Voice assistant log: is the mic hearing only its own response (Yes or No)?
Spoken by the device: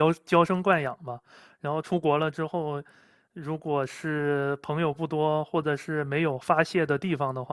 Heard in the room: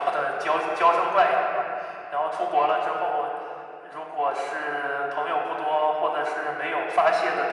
Yes